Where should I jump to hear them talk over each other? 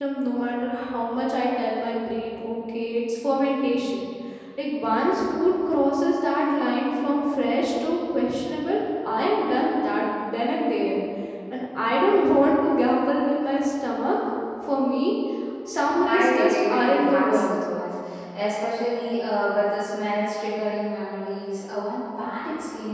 16 s

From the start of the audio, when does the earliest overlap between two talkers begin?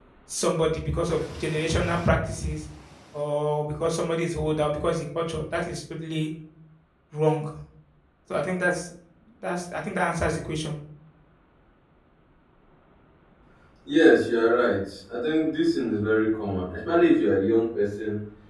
none

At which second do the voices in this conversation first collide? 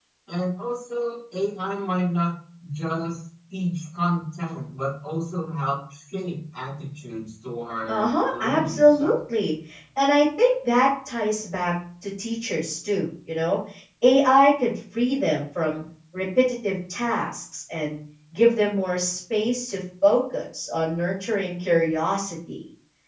8 s

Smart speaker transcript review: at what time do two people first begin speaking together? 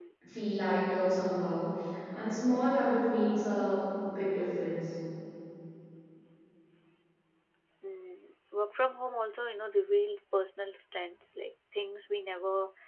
none

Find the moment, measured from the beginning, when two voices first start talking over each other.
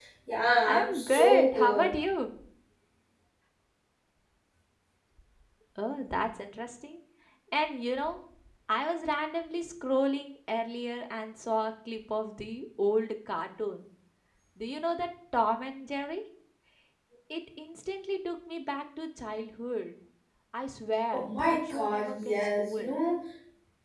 1 s

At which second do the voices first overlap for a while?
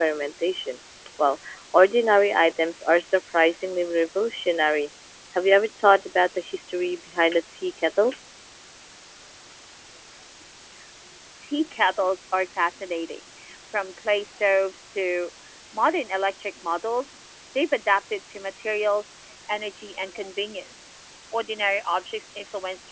none

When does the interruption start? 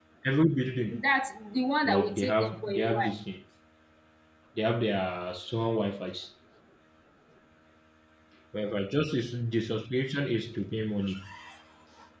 2 s

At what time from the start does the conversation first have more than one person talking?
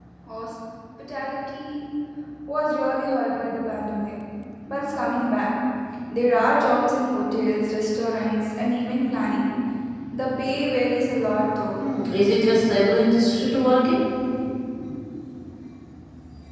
none

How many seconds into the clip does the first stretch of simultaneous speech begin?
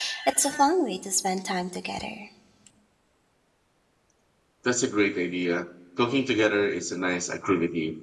none

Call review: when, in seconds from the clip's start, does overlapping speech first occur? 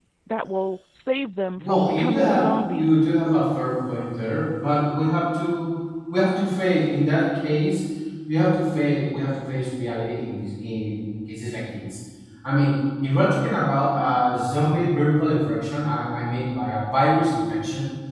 2 s

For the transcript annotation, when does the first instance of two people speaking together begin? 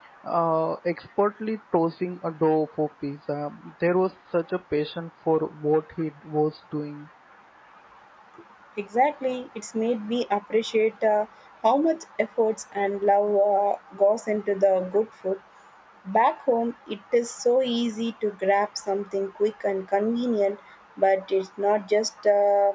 none

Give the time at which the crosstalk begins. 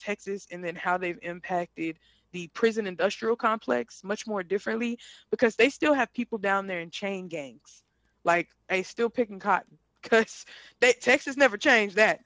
none

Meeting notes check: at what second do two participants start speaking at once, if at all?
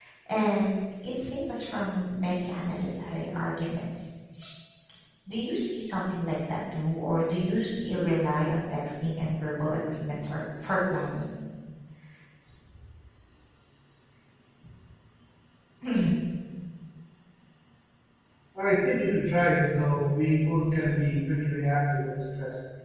none

